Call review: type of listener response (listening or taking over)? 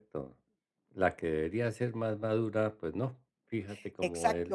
taking over